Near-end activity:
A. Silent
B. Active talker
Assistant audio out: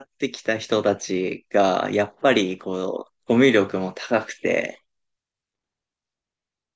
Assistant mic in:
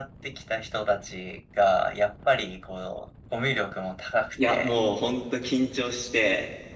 B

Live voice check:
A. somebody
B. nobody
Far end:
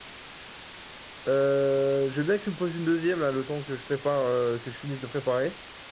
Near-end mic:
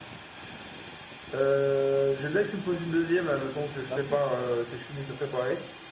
A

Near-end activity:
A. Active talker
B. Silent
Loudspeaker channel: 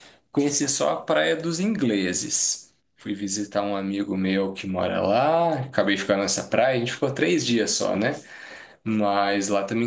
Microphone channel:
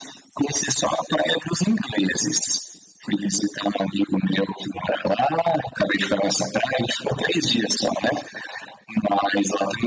B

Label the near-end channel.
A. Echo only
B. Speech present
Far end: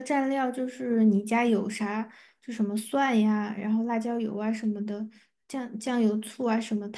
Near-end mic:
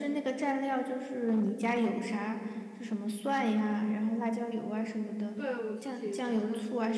B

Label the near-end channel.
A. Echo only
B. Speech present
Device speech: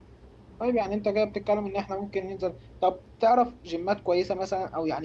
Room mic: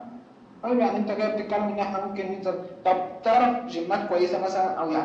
A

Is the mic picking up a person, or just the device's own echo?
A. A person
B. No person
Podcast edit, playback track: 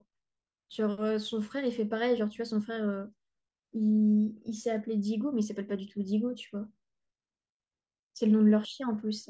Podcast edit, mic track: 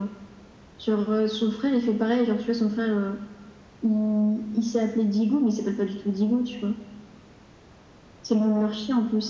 B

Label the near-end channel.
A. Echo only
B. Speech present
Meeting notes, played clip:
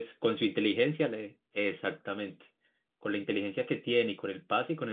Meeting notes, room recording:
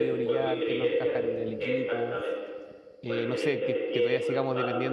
B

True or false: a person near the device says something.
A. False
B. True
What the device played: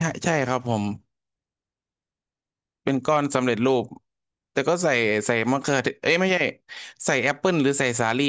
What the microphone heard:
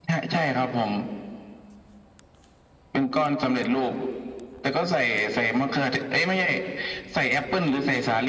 A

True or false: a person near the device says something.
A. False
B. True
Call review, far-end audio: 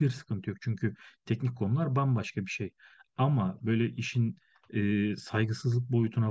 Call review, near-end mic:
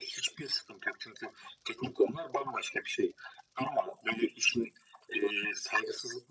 A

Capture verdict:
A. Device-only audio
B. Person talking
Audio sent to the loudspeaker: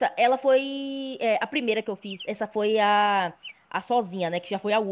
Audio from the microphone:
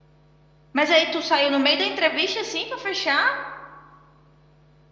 B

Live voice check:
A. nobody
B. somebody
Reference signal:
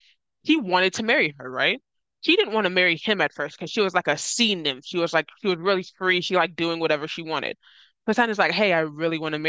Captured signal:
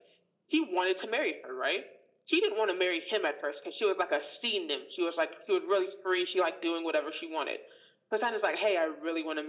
A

